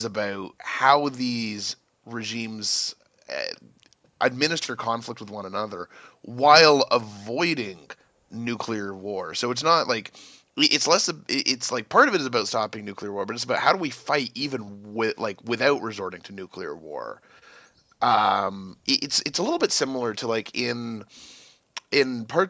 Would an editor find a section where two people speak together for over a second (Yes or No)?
No